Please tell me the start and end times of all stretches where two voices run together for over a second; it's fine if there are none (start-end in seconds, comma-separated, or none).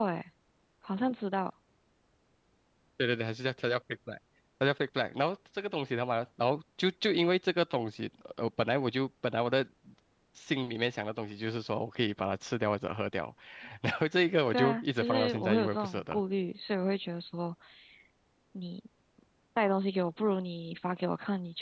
14.5-16.2